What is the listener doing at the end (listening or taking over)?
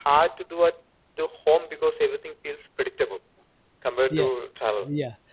taking over